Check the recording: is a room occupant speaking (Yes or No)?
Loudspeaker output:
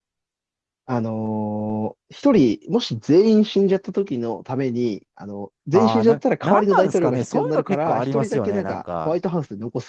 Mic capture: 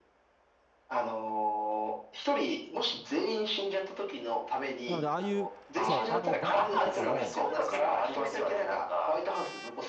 Yes